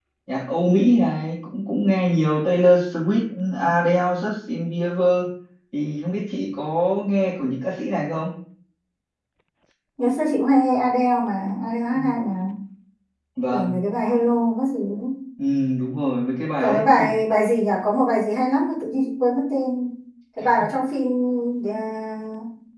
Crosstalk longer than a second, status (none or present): none